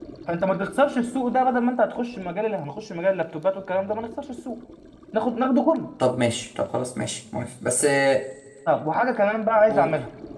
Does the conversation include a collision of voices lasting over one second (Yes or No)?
No